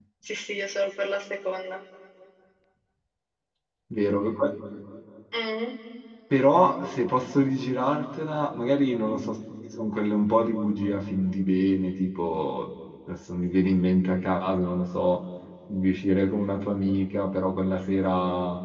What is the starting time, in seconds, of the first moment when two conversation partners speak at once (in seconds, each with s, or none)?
none